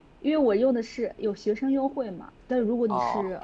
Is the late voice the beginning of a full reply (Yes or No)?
No